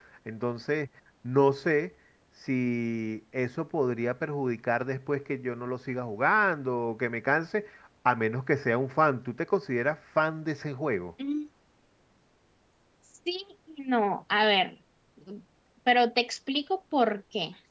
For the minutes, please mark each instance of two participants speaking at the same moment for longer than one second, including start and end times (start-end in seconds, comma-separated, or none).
none